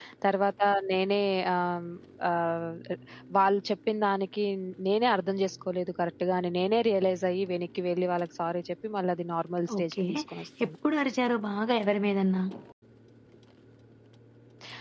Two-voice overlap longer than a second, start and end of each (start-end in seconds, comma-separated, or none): none